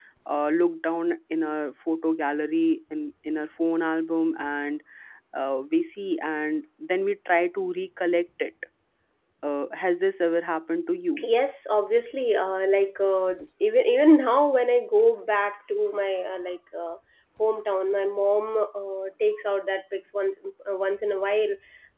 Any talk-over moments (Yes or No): No